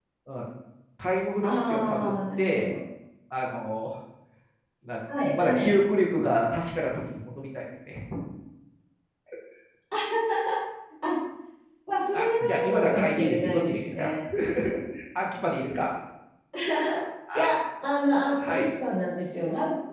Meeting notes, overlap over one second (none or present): present